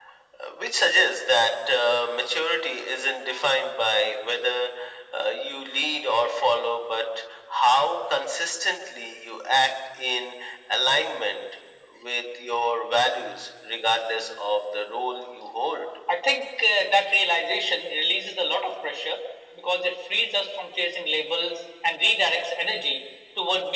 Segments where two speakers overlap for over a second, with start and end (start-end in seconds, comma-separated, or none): none